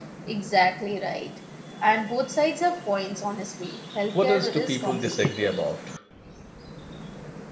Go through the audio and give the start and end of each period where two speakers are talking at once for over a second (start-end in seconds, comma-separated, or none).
4.1-5.6